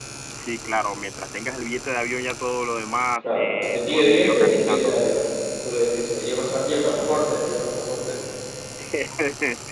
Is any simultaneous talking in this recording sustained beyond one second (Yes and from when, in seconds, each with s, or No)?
Yes, from 3.2 s